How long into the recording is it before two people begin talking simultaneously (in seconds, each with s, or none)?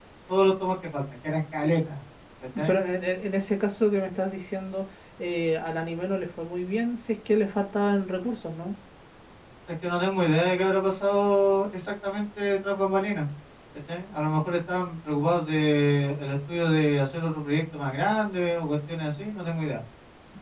none